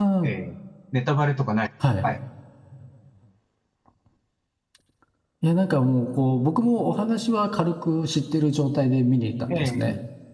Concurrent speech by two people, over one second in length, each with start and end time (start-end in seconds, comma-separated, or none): none